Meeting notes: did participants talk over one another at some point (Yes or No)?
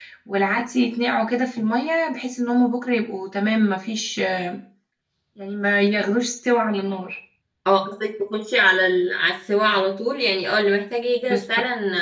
No